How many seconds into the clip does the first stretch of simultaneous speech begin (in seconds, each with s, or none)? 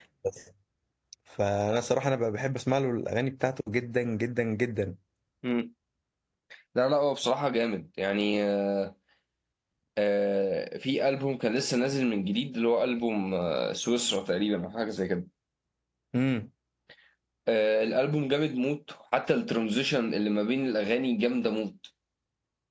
none